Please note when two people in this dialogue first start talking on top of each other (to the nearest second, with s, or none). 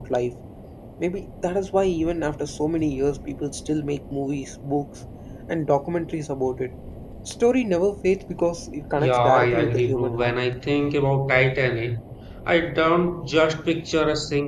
9 s